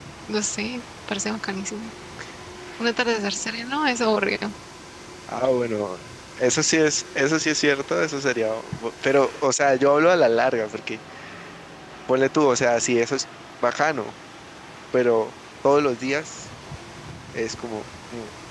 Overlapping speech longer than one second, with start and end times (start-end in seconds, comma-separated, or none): none